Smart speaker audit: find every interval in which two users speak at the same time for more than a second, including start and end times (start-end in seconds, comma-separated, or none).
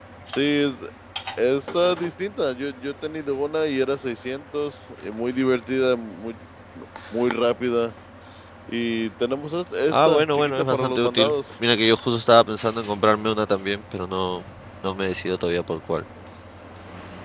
9.9-11.3